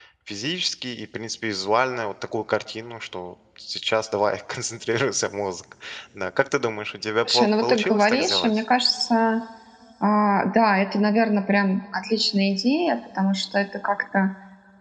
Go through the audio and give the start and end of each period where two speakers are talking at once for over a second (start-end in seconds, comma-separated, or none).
7.3-8.6